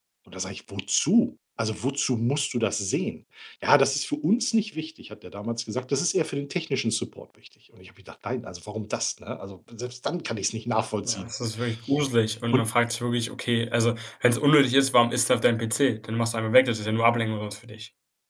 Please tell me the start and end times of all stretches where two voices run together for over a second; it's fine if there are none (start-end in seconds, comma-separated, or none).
none